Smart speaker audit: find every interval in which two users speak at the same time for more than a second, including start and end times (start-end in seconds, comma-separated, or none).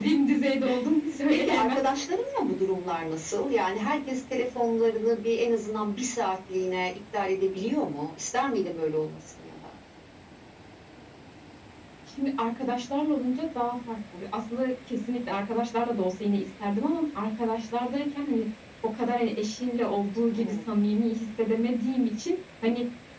none